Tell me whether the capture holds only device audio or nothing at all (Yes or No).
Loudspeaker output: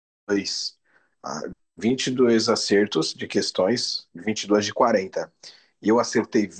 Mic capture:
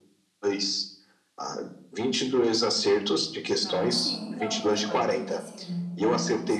No